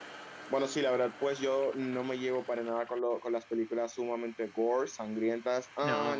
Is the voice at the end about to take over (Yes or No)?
No